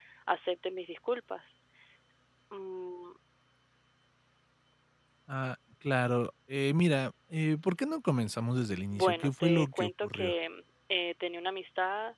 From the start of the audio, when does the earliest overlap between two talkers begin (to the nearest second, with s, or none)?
9 s